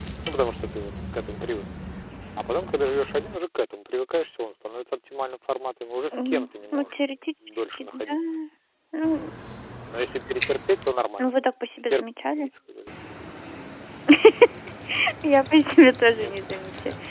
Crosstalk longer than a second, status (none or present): present